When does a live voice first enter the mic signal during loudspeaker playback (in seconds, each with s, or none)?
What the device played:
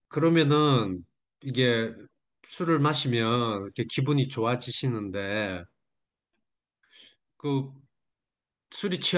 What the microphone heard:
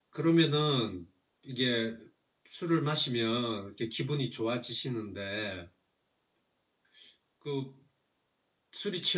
none